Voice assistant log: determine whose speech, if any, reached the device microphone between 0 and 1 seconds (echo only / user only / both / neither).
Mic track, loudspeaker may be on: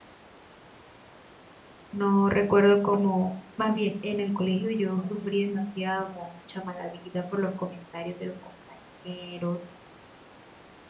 neither